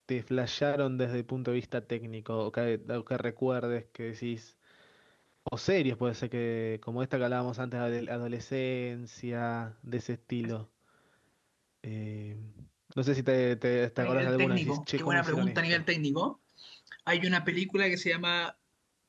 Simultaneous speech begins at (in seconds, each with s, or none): 14.0 s